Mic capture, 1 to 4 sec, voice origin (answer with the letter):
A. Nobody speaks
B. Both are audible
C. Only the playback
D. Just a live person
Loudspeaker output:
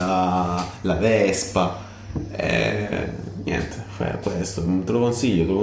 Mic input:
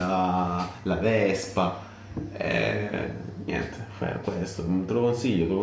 C